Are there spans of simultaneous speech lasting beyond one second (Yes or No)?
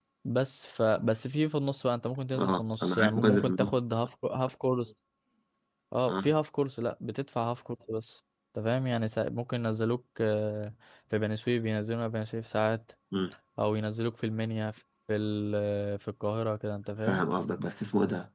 Yes